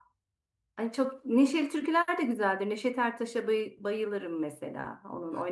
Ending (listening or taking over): taking over